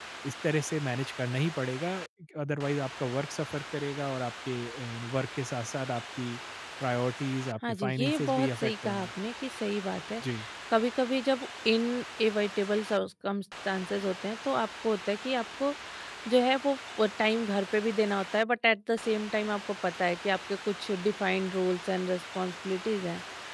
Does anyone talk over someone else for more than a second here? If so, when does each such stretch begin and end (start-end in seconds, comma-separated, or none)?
7.7-9.1